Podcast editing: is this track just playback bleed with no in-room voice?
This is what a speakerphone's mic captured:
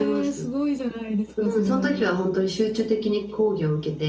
No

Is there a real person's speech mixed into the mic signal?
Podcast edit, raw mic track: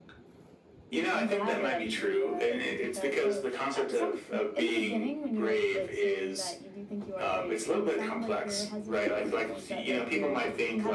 Yes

